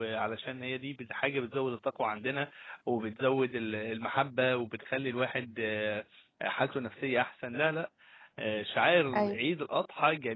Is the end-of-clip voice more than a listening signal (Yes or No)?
No